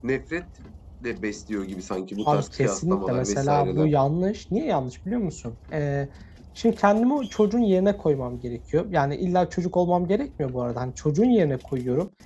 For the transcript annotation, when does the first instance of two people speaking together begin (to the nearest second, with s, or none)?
2 s